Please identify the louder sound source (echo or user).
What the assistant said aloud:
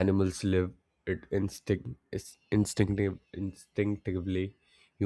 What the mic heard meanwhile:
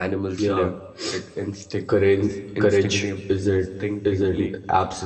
user